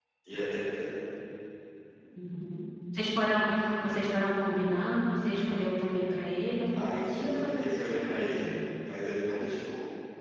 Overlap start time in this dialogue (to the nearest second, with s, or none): 7 s